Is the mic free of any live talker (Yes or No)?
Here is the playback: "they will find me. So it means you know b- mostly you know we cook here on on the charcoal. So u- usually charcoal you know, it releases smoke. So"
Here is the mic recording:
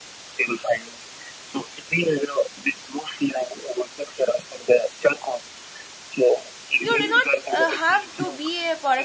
No